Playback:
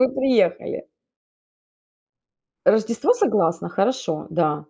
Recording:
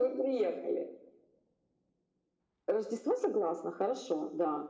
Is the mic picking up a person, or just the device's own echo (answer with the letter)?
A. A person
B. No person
B